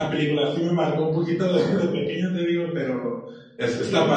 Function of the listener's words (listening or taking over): taking over